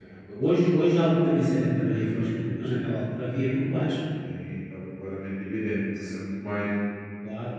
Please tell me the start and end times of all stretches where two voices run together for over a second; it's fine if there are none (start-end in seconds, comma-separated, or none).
none